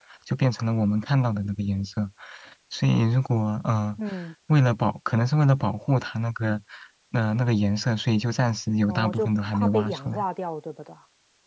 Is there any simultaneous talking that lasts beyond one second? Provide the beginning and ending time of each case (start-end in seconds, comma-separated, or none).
8.8-10.2